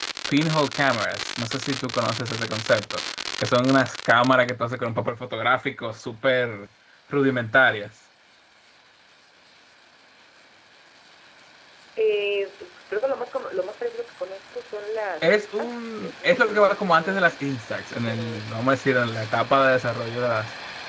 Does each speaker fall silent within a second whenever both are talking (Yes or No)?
No